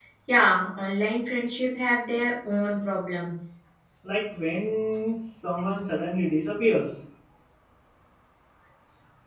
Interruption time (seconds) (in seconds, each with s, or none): none